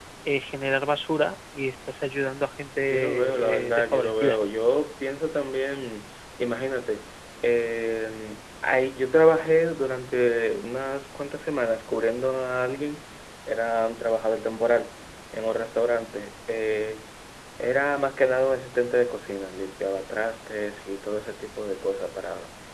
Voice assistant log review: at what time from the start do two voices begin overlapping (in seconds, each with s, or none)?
2.8 s